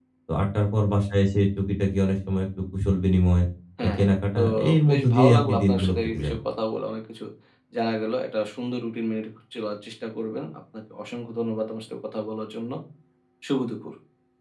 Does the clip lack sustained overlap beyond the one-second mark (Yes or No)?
No